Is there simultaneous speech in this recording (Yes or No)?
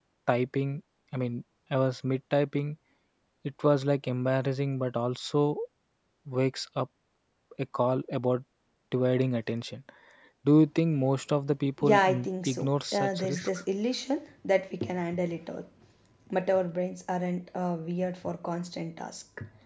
Yes